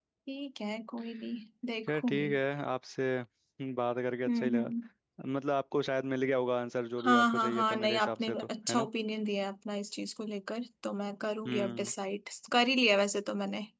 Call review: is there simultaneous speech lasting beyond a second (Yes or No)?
Yes